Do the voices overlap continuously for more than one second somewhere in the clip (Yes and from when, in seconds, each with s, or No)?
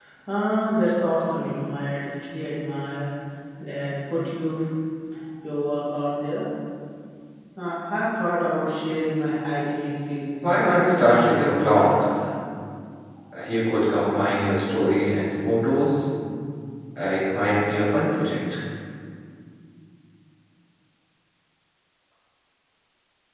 Yes, from 10.4 s